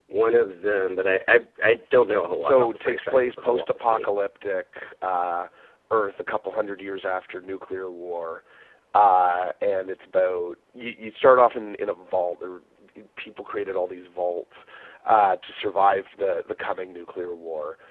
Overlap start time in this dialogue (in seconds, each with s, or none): 2.4 s